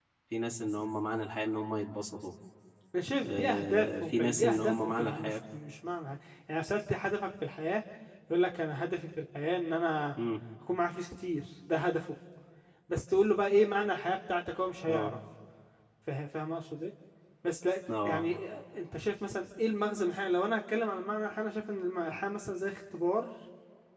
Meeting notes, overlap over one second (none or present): present